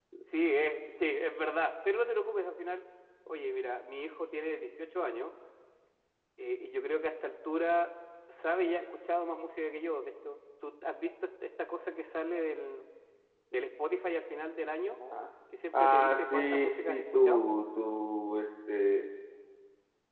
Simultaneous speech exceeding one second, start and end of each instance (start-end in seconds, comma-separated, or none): 15.7-17.4